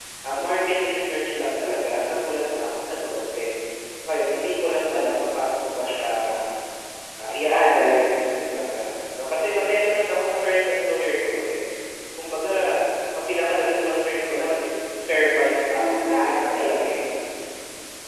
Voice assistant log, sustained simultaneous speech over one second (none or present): present